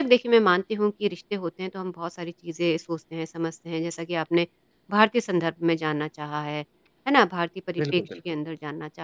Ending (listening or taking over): listening